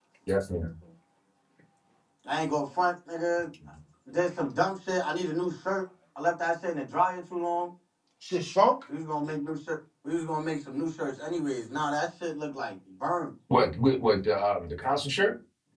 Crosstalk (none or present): none